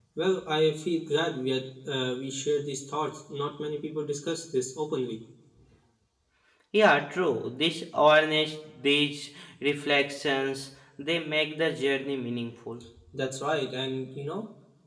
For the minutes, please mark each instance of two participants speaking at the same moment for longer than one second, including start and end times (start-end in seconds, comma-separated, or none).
none